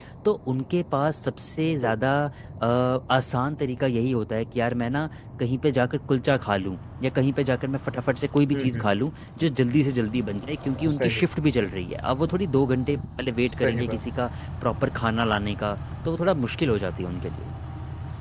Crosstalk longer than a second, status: none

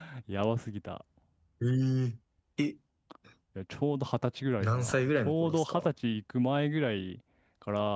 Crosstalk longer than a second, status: present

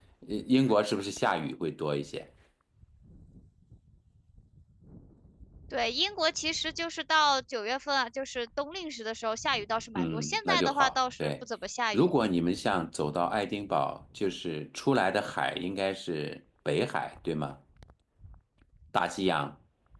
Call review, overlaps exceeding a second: present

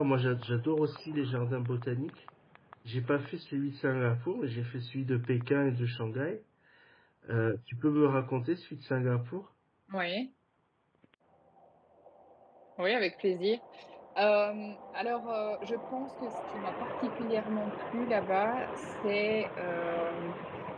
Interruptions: none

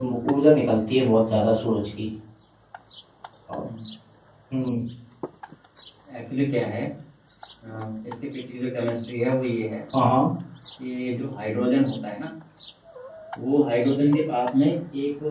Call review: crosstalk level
none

